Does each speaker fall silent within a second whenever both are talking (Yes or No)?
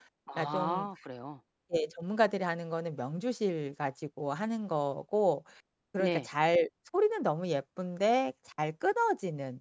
Yes